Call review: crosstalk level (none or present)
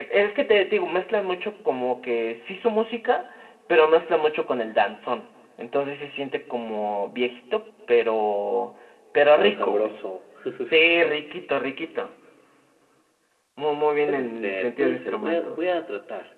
present